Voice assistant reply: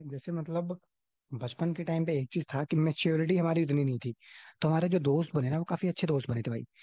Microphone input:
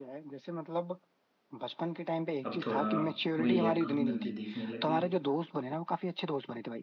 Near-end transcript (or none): अब थोड़ा वही है काम धंधे देखने लग गए